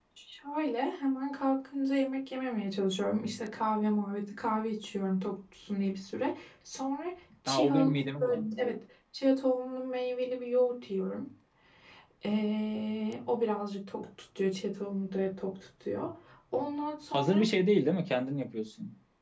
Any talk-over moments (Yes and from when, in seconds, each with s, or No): Yes, from 7.5 s